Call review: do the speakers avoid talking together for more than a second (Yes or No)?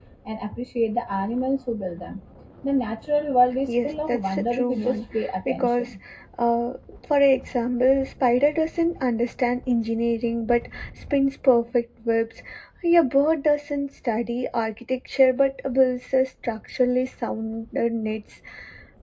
No